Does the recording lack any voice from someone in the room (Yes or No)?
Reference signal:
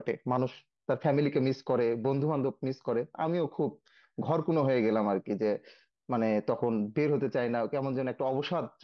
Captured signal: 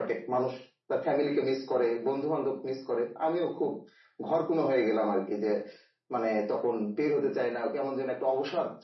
Yes